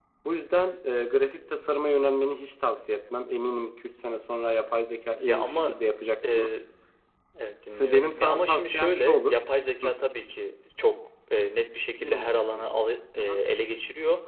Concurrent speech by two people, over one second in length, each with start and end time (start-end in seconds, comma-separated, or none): 7.7-9.4, 12.0-13.4